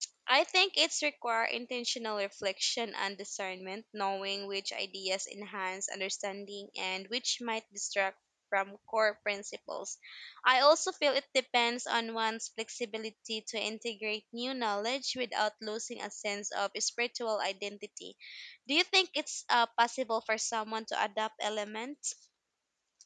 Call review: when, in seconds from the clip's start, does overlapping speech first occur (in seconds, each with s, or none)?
none